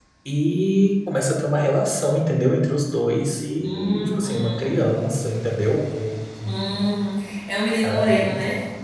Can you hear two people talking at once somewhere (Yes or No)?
Yes